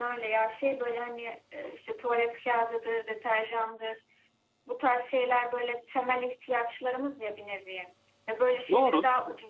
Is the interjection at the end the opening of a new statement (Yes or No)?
No